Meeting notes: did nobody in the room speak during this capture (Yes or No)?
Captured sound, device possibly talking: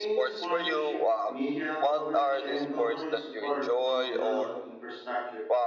No